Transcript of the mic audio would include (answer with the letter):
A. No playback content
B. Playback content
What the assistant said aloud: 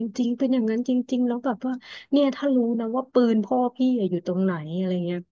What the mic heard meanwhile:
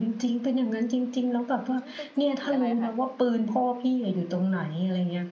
B